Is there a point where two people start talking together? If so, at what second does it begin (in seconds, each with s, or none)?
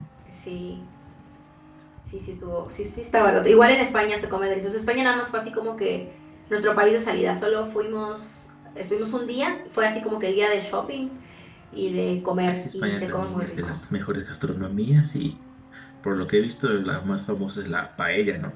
12.5 s